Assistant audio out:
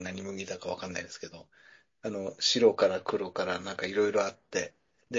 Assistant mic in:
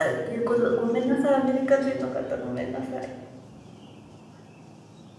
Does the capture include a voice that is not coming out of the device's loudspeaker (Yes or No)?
Yes